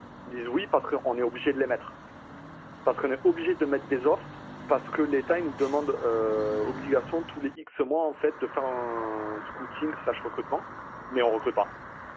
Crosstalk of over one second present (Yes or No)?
No